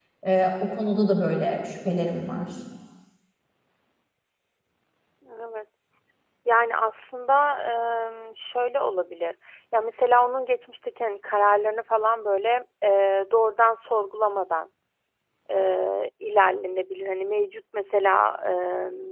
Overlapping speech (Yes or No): No